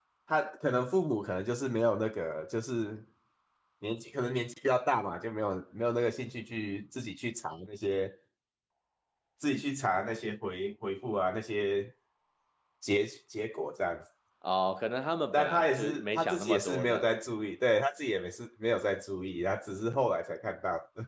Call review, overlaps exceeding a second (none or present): present